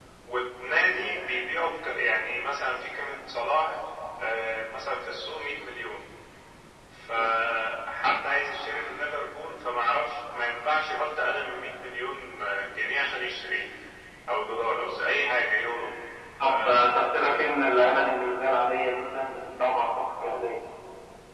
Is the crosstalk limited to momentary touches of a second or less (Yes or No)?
Yes